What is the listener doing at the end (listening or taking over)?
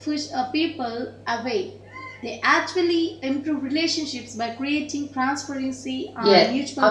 taking over